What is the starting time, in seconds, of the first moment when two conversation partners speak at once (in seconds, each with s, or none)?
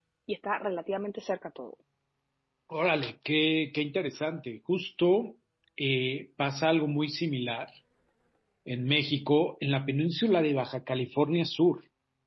none